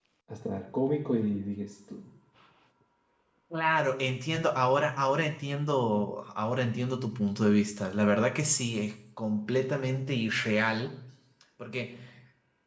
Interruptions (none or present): none